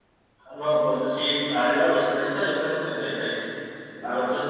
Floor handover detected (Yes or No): No